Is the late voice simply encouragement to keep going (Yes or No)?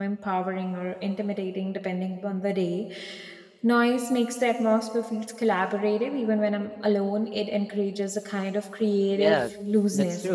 No